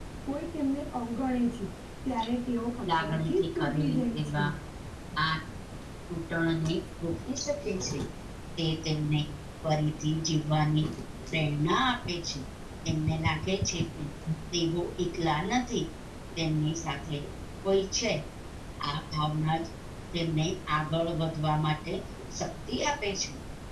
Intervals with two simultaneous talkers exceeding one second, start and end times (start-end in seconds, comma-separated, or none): 2.9-4.4